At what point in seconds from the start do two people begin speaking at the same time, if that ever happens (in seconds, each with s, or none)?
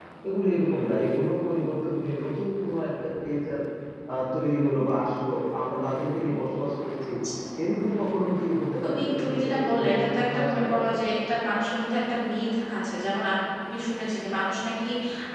8.8 s